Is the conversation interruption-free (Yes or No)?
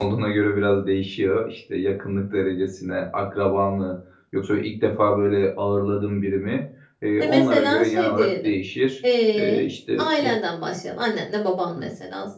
No